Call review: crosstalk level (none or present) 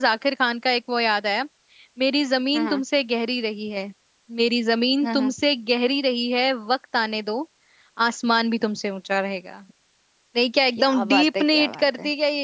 present